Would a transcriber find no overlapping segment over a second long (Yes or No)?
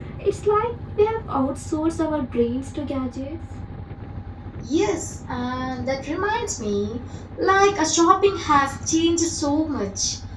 Yes